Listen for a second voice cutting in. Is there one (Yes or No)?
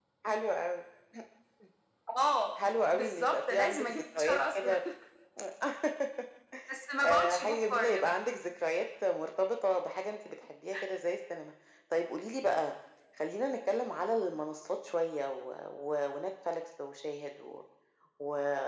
Yes